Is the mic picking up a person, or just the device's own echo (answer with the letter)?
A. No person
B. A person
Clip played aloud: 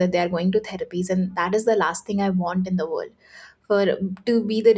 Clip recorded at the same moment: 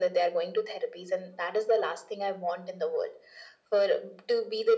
A